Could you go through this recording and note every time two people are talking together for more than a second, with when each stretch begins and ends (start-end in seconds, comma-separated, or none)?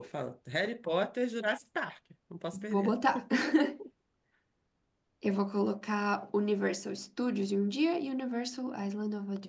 none